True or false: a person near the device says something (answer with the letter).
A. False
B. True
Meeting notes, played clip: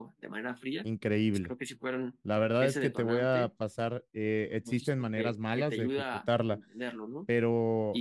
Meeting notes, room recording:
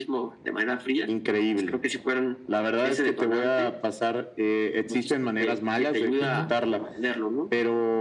B